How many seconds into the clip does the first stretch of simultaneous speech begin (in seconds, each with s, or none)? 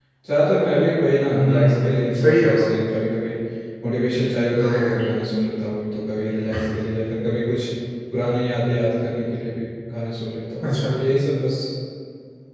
1.3 s